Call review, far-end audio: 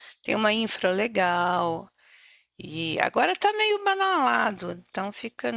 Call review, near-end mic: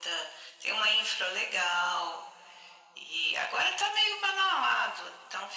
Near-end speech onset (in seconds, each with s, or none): none